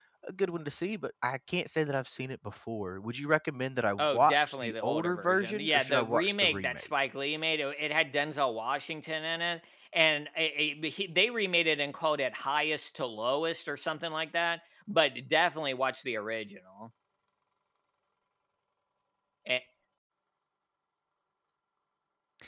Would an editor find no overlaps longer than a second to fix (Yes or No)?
No